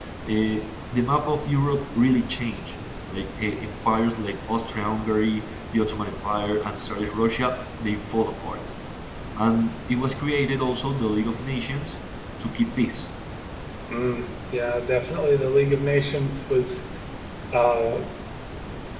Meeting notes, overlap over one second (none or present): none